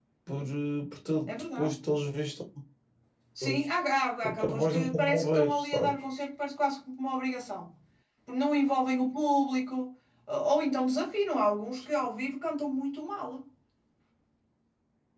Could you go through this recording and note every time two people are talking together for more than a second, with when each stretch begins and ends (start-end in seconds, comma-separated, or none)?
4.2-5.9